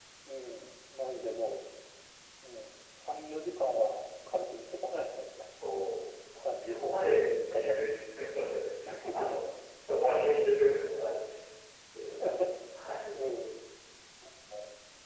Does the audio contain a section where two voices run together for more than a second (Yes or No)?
Yes